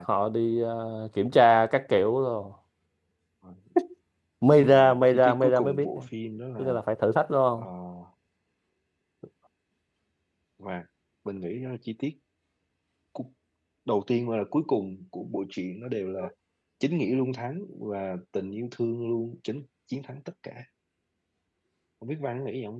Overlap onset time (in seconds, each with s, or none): 4.6 s